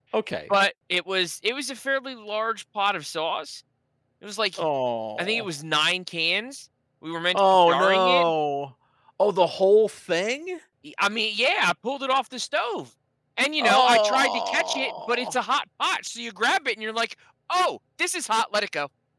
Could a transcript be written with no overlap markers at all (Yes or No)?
No